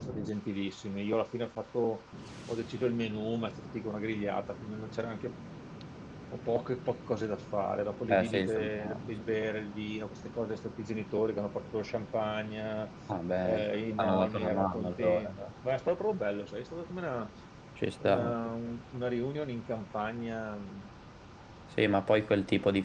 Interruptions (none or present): present